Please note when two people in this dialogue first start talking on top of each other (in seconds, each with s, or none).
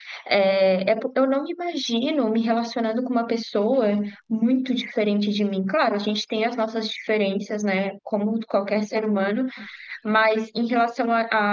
none